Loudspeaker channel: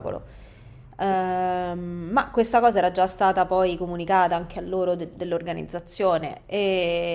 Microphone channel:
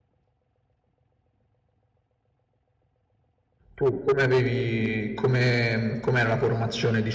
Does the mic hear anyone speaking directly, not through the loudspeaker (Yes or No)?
Yes